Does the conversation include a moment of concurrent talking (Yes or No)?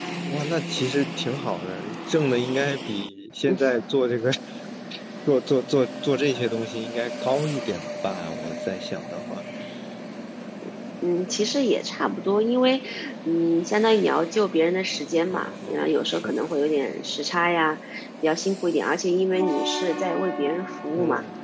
Yes